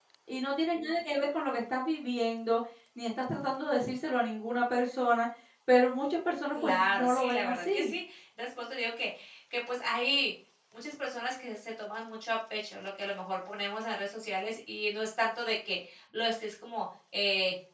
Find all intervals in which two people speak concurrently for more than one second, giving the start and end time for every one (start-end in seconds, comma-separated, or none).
6.5-7.9